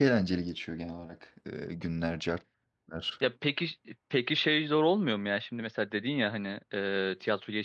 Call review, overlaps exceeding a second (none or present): none